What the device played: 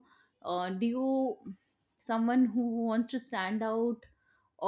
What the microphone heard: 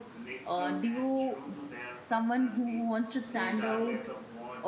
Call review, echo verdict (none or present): present